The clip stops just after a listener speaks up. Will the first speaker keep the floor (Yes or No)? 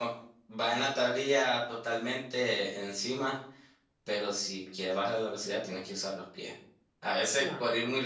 Yes